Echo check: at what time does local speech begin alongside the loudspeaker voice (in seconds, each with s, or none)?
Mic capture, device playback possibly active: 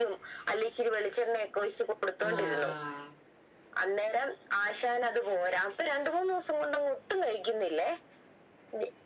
2.3 s